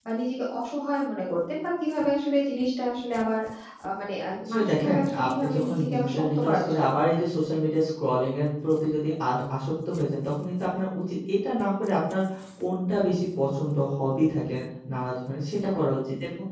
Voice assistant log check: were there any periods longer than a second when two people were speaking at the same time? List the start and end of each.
4.4-7.2

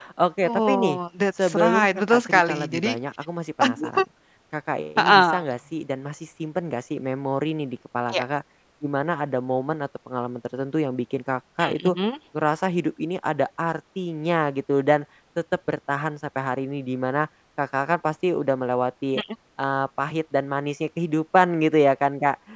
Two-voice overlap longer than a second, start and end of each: 1.4-2.9

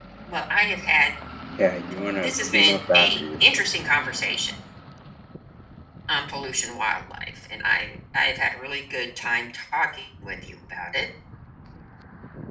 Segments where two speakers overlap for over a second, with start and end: 2.2-3.6

